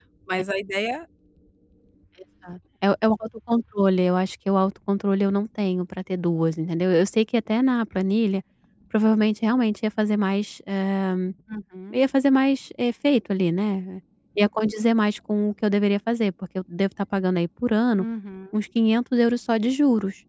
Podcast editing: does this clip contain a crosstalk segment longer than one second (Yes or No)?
No